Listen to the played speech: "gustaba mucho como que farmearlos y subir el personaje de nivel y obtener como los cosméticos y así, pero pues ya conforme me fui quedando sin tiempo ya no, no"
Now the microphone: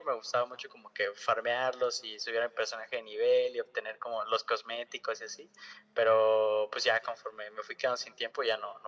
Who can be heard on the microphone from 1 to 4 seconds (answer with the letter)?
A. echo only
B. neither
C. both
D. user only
A